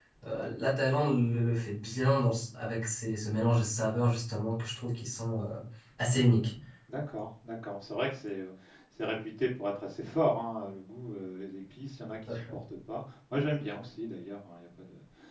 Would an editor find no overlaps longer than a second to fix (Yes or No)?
Yes